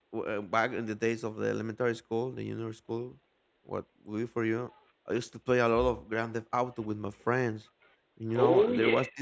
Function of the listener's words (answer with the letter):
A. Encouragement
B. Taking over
A